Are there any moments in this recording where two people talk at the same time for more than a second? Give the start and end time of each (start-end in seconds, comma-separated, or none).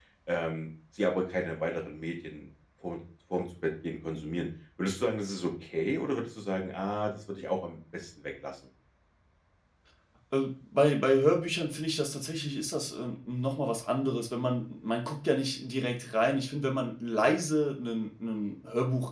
none